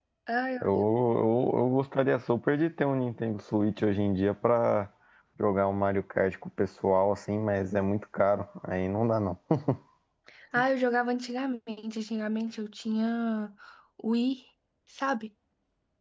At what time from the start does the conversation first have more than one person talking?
none

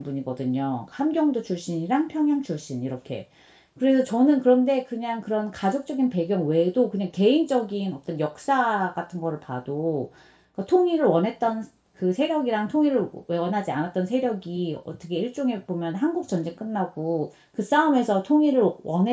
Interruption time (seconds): none

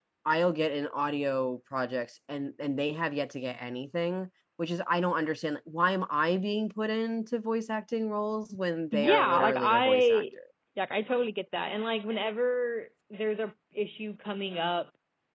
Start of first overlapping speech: 8.9 s

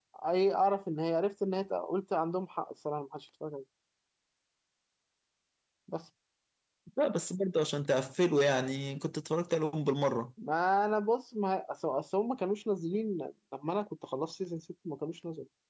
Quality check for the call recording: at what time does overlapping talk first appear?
none

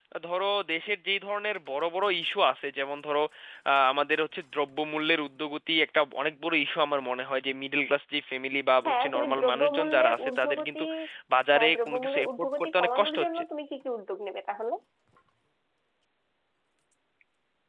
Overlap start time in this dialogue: 8.8 s

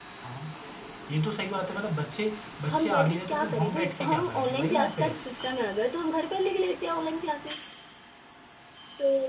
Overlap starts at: 2.6 s

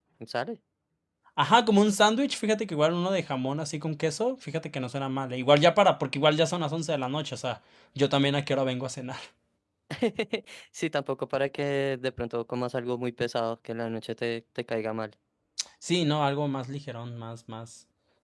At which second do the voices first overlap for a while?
none

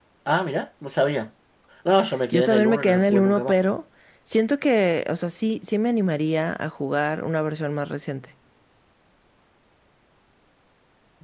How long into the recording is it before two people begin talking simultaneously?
2.3 s

